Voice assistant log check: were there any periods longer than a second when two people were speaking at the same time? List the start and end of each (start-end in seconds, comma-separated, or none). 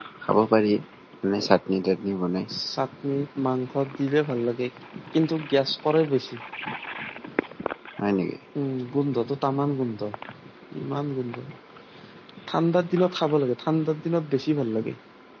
none